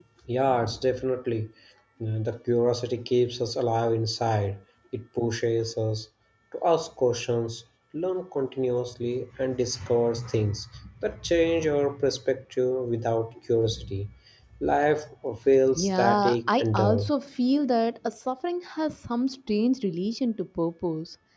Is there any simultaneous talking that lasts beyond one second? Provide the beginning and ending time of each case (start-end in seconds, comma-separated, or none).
15.8-17.1